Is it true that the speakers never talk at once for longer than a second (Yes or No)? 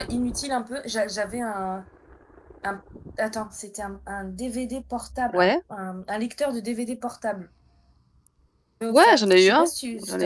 No